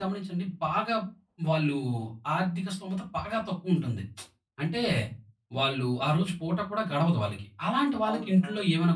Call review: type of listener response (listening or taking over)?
listening